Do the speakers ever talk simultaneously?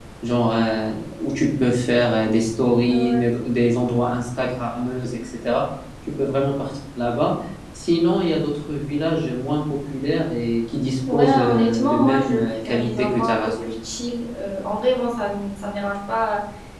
Yes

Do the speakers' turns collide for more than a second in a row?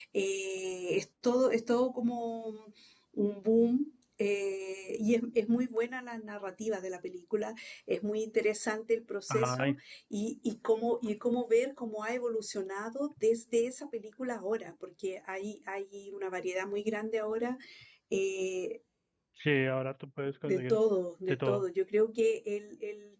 No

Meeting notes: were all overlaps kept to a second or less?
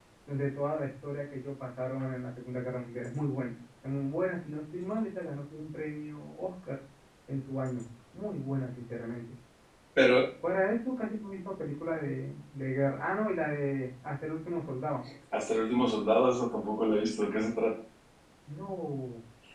Yes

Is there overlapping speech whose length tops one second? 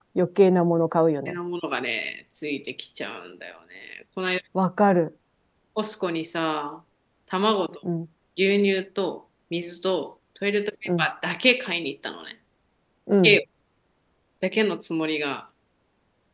No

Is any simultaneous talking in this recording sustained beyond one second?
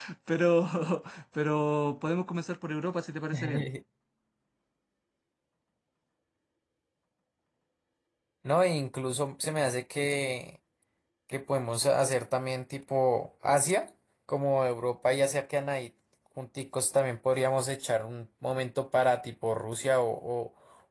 No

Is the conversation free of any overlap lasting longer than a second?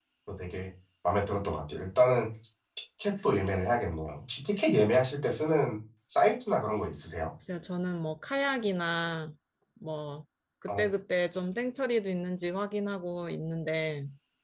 Yes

